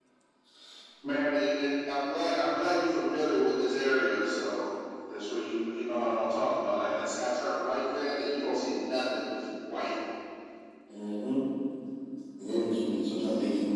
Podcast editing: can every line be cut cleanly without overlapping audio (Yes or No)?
Yes